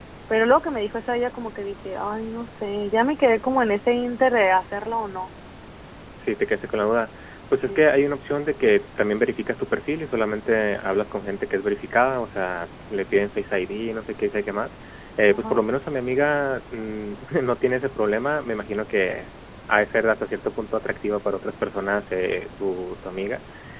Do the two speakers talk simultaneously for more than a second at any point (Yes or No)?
No